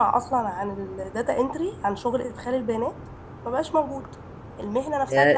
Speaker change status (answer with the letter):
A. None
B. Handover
B